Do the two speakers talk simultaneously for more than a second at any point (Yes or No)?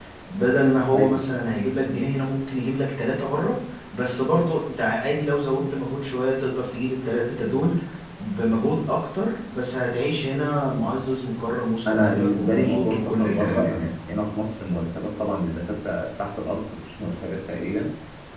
Yes